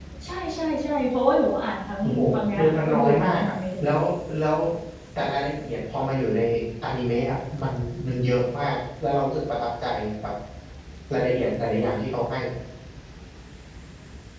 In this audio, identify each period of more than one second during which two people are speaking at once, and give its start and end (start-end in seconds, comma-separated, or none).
2.0-3.5